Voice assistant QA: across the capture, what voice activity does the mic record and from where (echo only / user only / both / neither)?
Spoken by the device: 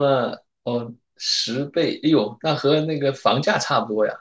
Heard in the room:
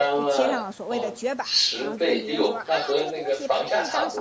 both